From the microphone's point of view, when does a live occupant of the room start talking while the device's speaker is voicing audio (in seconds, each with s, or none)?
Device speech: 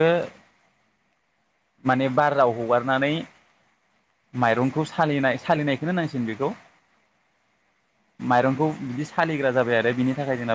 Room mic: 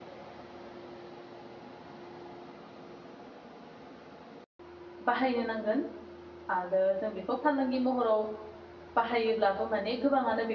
5.1 s